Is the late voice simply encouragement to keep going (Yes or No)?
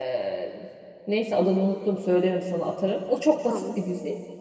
Yes